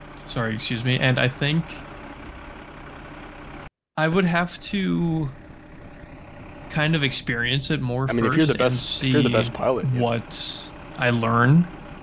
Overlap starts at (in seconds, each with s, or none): 8.1 s